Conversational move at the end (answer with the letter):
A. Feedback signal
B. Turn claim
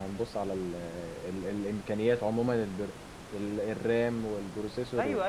B